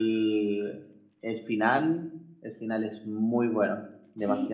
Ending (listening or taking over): taking over